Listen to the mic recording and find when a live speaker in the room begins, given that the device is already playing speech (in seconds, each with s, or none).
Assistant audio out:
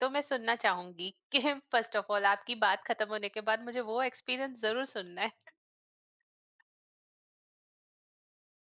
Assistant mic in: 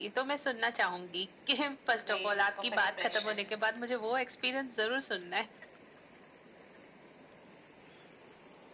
1.9 s